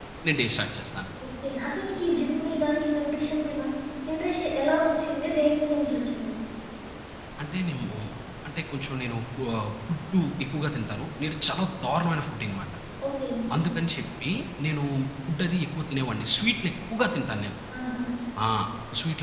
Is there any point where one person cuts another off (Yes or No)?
No